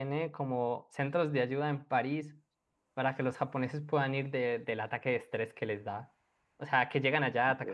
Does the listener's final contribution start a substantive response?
No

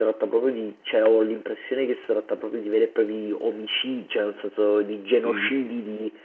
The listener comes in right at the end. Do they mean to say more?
No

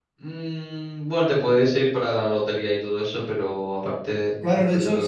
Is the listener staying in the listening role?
No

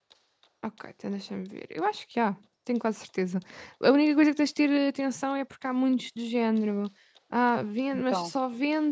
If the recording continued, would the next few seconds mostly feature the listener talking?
No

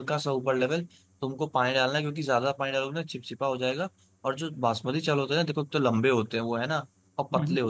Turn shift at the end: No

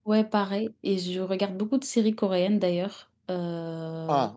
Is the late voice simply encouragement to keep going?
No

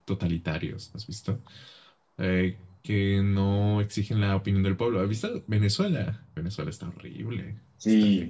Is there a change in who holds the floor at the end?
Yes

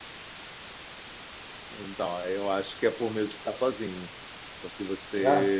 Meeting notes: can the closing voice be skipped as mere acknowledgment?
Yes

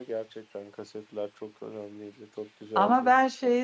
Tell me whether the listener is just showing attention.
No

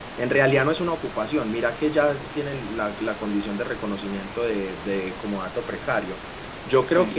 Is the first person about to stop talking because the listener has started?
No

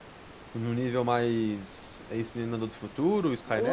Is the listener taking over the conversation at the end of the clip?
Yes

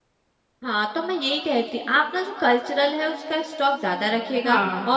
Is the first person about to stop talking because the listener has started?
No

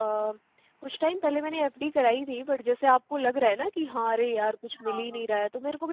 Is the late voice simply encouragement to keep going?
Yes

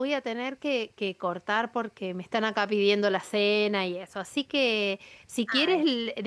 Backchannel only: Yes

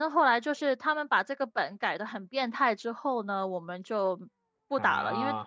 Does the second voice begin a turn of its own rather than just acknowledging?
No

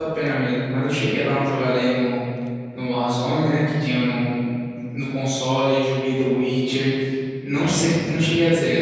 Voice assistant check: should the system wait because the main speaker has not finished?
Yes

